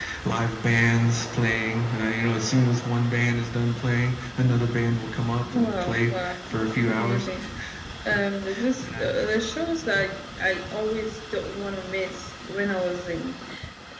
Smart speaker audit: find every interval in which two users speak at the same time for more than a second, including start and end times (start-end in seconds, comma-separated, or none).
5.5-7.3